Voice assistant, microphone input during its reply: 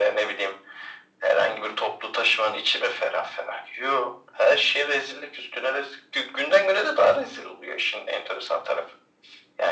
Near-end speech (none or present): none